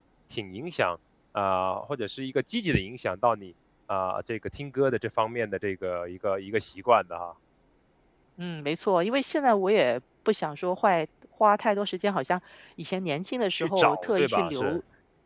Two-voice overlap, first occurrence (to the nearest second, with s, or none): 14 s